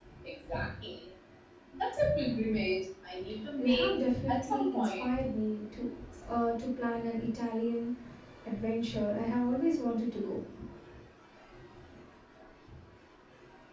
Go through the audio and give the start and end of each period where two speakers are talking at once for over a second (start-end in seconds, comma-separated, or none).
3.6-5.1